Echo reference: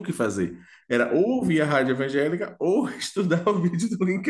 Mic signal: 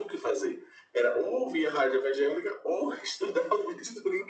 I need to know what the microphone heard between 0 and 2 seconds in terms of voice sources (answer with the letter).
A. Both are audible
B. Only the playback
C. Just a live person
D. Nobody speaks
B